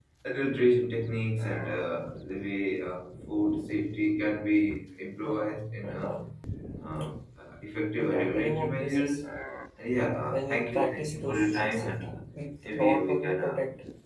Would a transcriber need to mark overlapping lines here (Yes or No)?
Yes